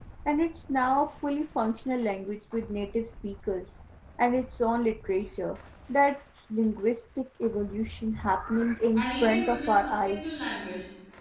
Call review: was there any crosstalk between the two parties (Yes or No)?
Yes